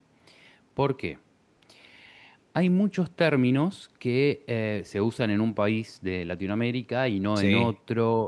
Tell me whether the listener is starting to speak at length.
No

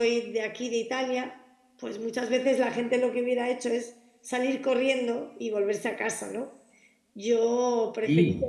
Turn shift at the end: No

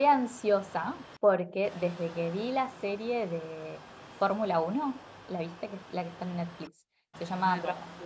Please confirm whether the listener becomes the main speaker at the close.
No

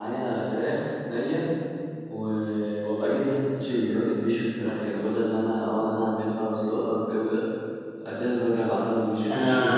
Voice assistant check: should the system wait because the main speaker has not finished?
No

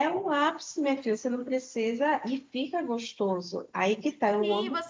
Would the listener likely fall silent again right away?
No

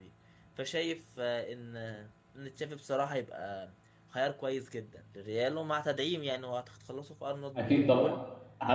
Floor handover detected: Yes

